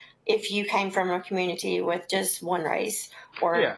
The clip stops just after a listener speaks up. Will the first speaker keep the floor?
No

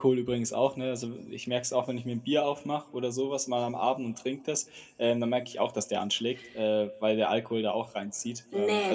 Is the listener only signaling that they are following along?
No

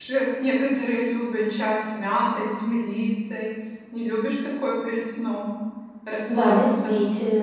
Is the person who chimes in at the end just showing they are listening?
No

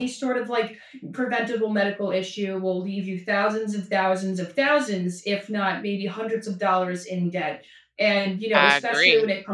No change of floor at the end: Yes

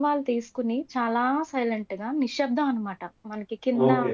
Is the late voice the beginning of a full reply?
Yes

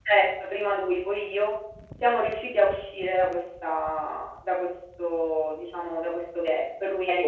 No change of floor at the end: No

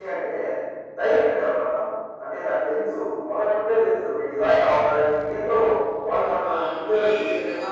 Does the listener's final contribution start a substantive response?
Yes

